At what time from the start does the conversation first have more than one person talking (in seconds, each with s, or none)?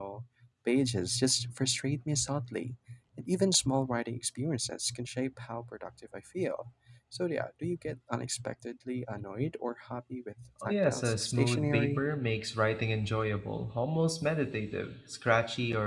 10.6 s